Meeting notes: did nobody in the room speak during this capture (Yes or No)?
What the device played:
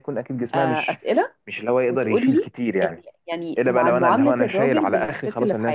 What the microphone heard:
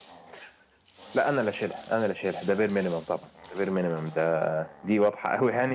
No